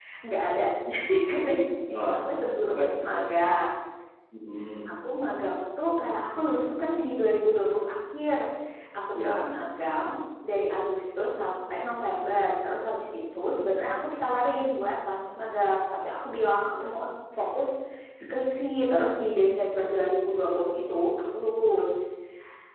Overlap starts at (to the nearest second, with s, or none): 2 s